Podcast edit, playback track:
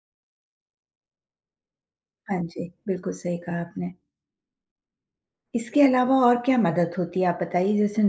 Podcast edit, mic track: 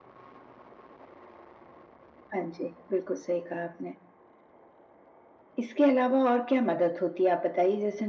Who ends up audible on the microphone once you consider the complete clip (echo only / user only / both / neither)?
echo only